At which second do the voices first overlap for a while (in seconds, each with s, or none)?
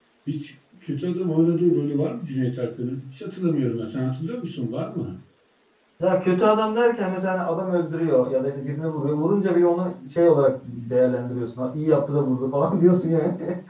none